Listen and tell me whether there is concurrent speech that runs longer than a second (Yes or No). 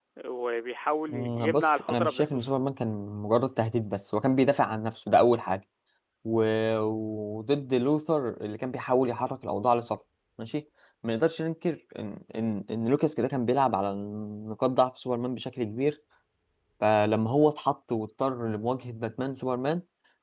Yes